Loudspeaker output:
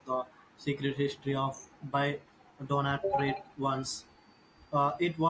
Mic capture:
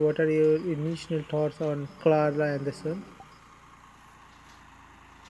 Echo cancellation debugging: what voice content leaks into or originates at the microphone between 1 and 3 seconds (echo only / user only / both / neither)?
user only